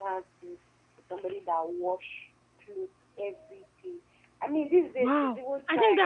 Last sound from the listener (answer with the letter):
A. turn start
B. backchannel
A